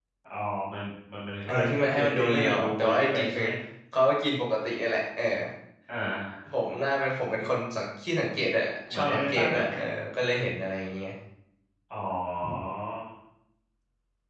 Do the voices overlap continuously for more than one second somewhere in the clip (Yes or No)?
Yes